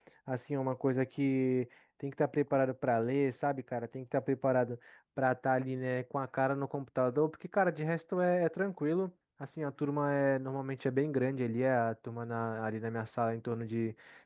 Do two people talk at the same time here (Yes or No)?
No